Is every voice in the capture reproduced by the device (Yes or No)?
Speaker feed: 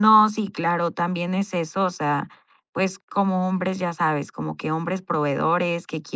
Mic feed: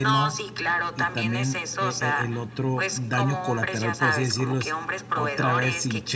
No